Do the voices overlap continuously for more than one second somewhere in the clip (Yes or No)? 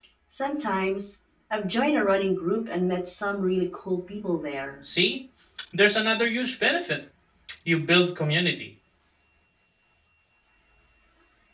No